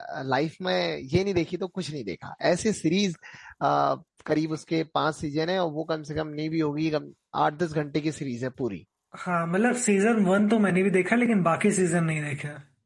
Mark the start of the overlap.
none

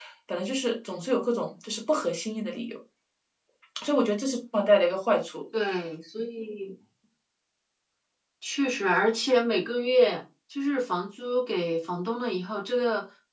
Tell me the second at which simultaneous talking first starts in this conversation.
none

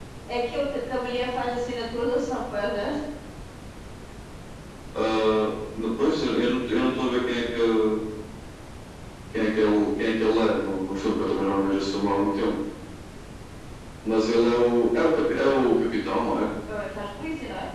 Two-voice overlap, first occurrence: none

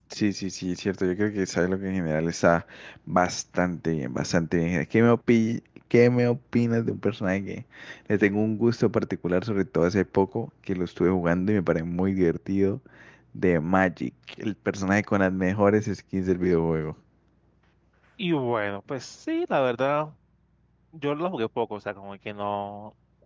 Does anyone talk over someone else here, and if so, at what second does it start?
none

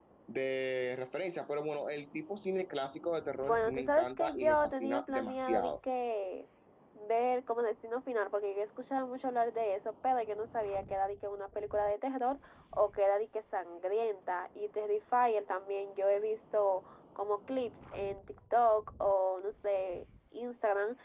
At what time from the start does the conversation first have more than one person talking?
3.4 s

